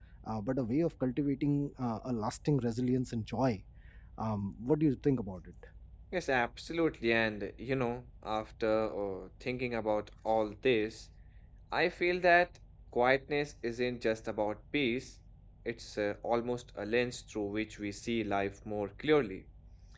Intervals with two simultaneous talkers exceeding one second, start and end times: none

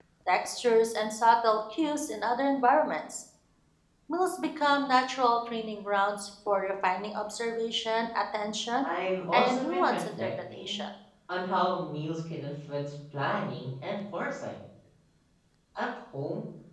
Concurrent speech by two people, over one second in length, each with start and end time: 9.3-10.8

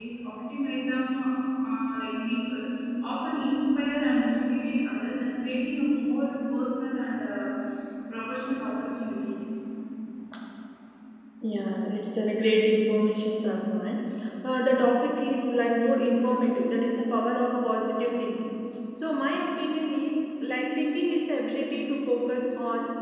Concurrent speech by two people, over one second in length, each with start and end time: none

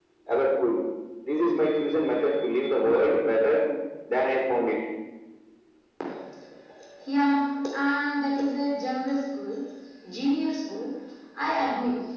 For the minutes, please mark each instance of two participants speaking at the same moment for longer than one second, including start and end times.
none

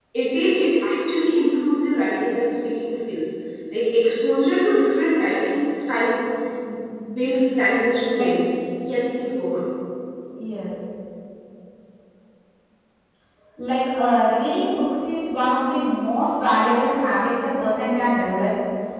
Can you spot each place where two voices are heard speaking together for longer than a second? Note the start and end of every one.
none

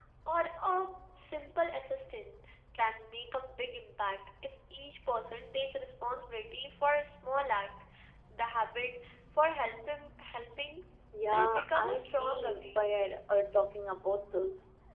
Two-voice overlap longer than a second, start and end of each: 11.2-12.9

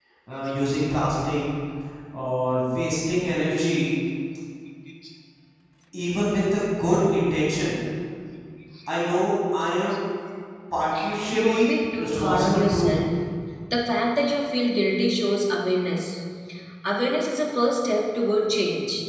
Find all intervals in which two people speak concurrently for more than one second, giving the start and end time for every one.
11.4-13.0

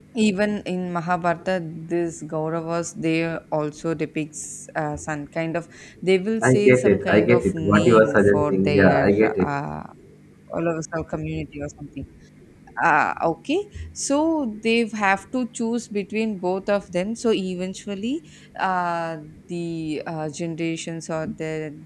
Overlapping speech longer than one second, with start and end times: 6.4-9.5

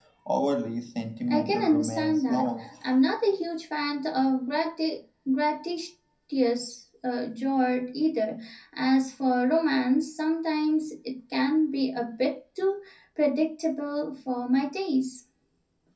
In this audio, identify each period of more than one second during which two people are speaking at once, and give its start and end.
1.3-2.7

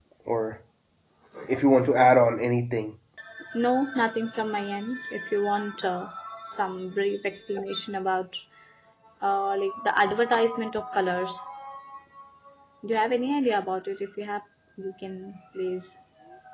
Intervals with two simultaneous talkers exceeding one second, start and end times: none

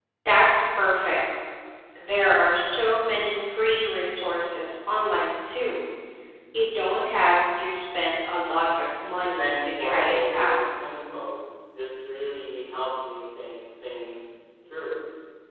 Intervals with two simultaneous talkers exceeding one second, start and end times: 9.4-10.6

